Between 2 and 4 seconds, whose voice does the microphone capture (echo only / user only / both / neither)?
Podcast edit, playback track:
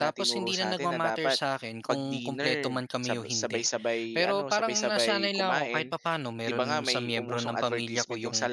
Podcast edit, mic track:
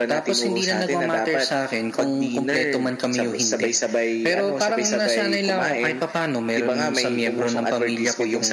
echo only